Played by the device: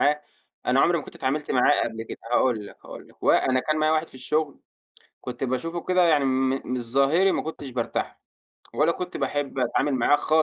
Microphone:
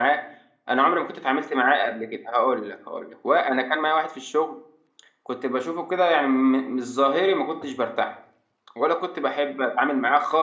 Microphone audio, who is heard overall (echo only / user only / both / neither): echo only